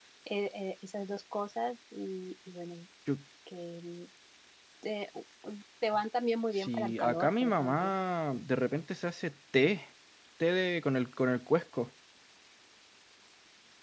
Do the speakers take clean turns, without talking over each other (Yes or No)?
No